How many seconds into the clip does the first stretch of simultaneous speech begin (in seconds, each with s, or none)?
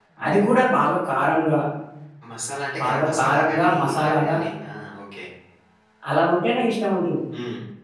2.8 s